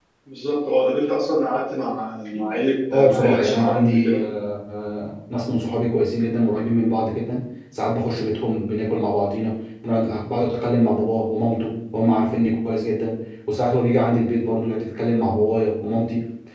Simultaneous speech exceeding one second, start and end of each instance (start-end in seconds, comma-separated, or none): 2.9-4.2